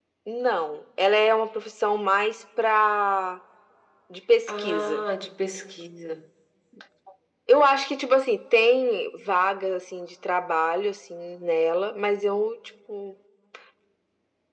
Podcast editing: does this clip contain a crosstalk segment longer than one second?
No

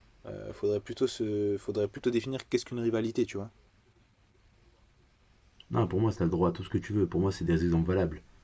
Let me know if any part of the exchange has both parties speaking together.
No

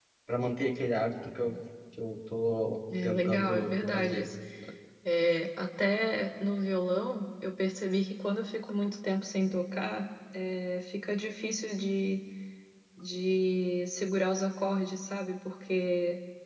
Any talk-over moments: Yes, from 2.9 s

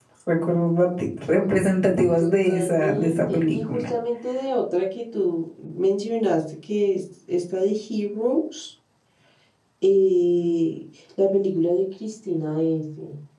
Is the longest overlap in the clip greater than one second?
Yes, from 2.2 s

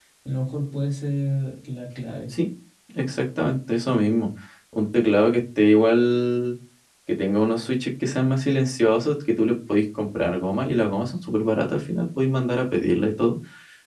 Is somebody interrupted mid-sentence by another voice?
No

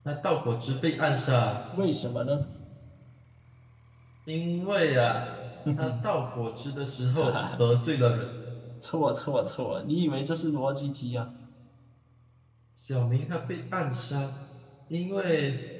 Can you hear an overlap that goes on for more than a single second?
No

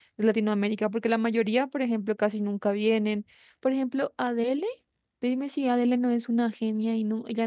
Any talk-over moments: No

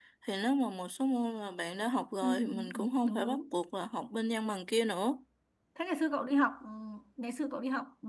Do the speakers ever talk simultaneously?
Yes, from 2.2 s

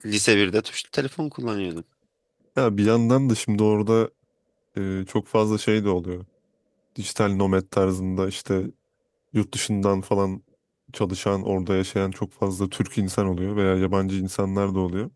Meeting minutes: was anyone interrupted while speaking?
No

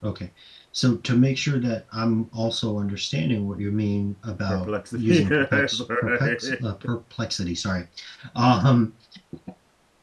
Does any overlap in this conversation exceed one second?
Yes, from 4.5 s

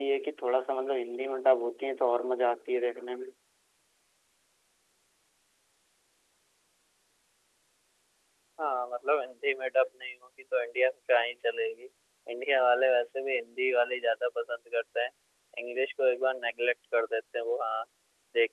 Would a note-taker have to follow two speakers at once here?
No

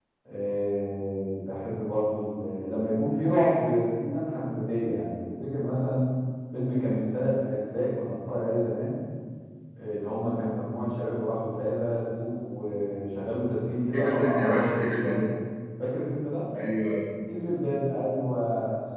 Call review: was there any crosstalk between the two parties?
Yes, from 13.9 s

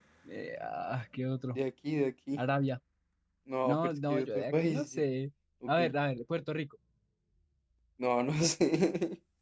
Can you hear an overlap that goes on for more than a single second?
Yes, from 3.6 s

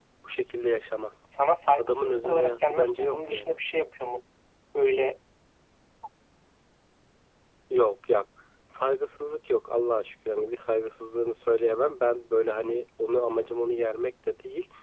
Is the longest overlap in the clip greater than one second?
Yes, from 1.8 s

